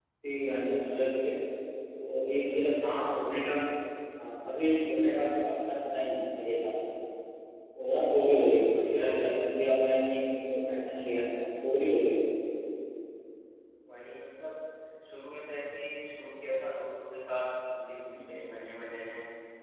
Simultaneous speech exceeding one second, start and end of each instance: none

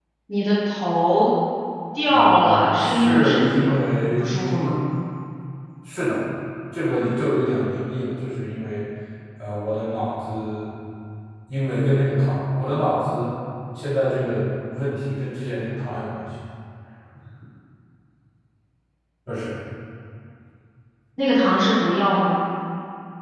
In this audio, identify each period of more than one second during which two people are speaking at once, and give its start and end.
2.1-3.7

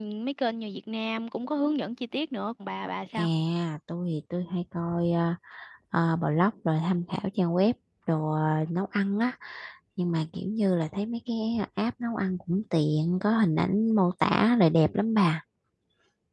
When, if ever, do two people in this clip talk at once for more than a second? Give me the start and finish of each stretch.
none

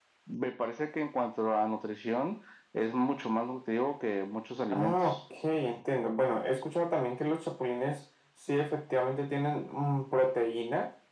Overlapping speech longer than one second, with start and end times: none

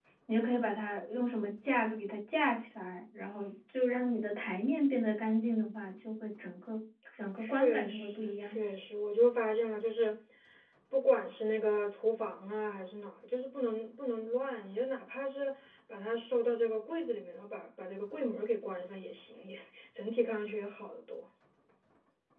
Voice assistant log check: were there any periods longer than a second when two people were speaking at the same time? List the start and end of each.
7.4-8.6

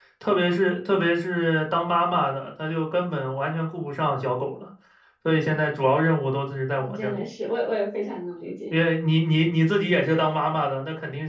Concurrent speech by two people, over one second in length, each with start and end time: none

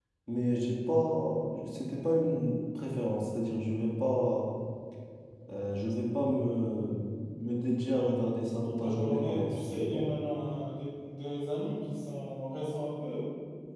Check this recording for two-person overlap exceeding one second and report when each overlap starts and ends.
8.8-10.1

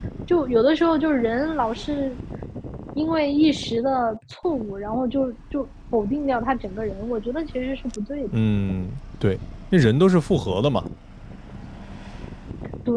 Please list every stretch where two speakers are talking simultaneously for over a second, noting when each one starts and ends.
none

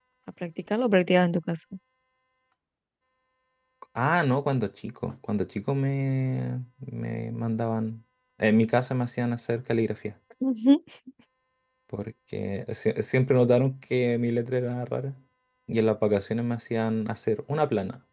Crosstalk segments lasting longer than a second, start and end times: none

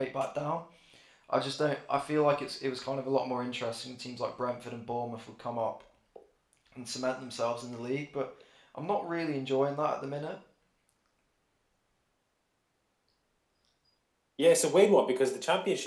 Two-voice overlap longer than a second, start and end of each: none

